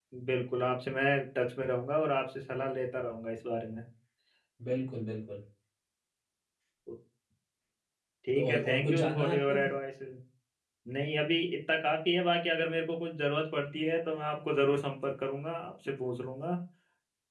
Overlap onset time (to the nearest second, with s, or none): 8 s